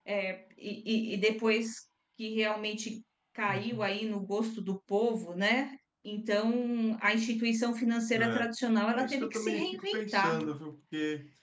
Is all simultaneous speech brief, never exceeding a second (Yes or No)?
No